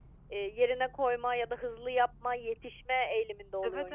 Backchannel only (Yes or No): No